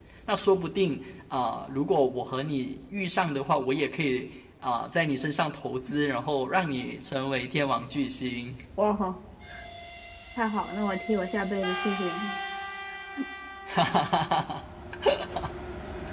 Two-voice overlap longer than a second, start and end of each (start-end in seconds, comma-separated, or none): none